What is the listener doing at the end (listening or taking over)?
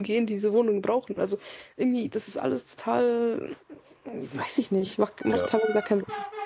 taking over